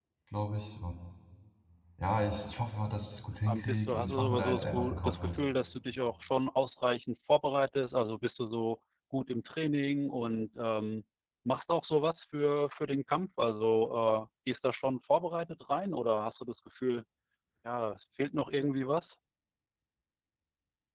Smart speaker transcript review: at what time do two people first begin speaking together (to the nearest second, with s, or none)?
3 s